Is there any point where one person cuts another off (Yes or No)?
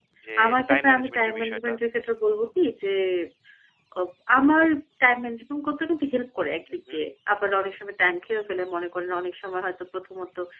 Yes